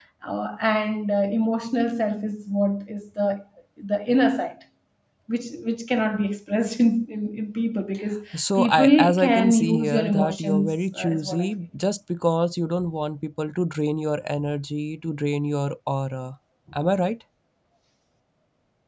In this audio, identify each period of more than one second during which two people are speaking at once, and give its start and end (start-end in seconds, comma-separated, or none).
8.6-11.5